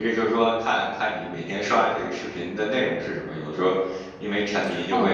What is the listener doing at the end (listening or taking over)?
taking over